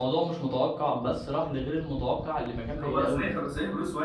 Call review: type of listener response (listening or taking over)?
taking over